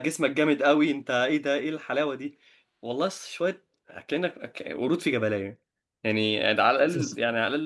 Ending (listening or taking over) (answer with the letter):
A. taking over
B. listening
B